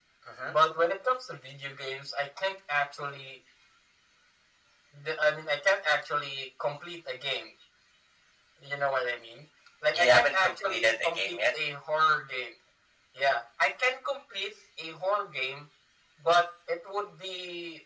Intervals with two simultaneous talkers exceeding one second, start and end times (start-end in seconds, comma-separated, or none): 9.9-11.4